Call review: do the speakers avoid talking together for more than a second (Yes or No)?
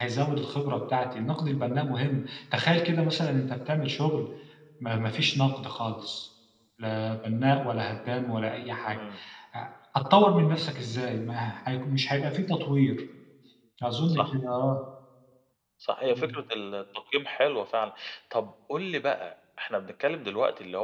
Yes